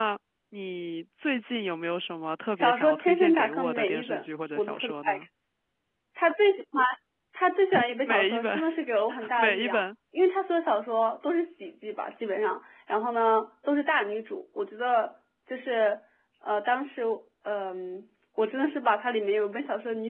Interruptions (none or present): present